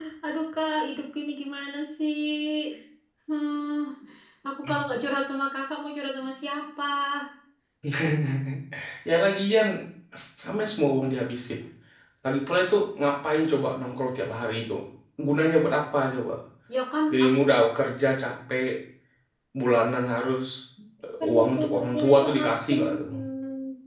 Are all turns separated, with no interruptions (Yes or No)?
No